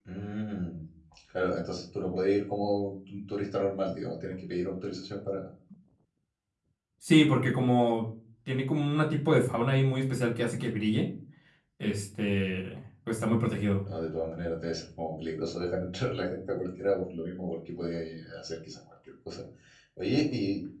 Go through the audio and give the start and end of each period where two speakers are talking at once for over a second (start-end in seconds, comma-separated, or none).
none